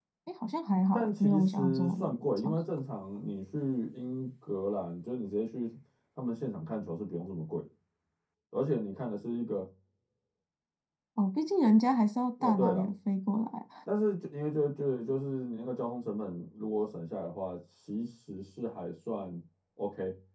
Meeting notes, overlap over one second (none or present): present